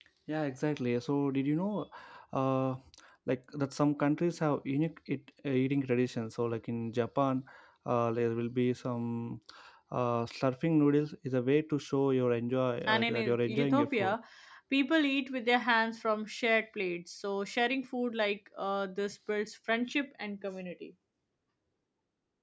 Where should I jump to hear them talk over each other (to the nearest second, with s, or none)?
13 s